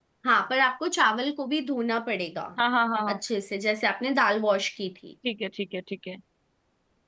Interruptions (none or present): none